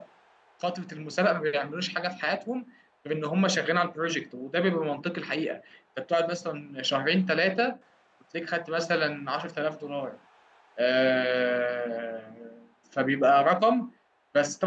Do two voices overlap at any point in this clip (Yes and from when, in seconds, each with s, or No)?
No